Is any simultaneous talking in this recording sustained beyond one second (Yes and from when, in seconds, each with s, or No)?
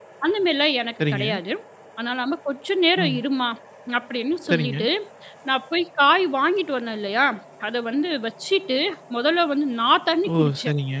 No